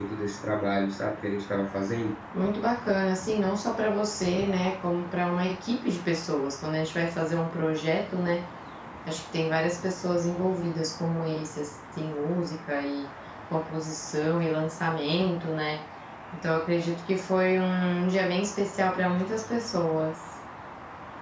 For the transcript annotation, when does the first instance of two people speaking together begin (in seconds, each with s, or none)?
none